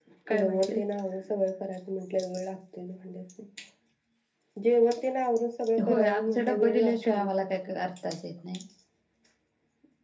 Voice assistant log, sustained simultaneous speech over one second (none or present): present